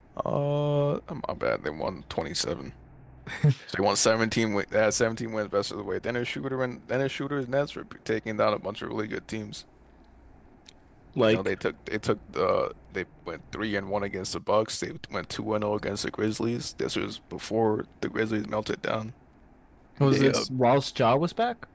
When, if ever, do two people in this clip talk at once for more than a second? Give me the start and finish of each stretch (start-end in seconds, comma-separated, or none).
none